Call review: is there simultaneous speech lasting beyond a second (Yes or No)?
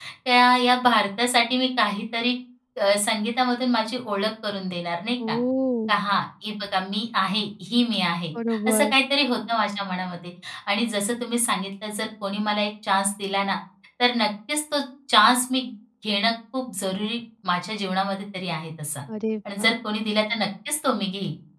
No